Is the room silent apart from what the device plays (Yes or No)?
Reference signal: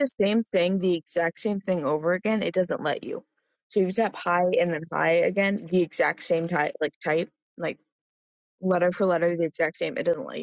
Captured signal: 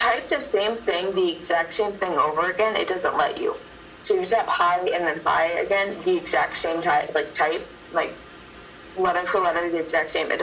Yes